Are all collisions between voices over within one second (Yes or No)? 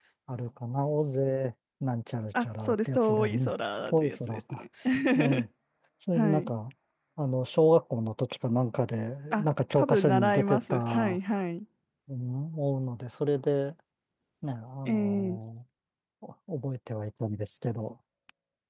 No